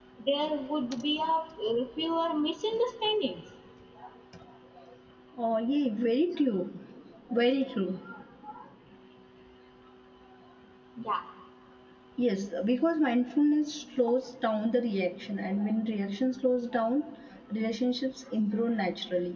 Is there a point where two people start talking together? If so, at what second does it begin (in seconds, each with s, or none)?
none